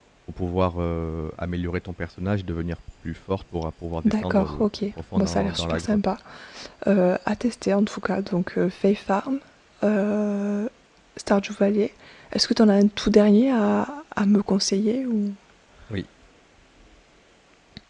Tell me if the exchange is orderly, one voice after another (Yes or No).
No